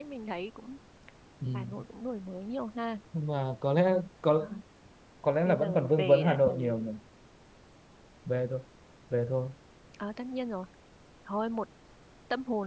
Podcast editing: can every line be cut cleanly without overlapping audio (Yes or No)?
No